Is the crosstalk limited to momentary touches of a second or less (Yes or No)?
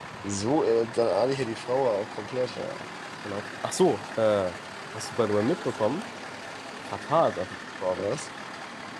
Yes